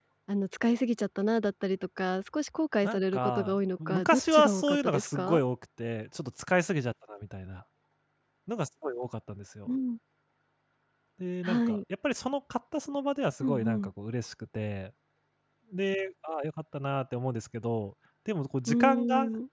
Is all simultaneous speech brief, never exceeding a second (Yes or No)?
No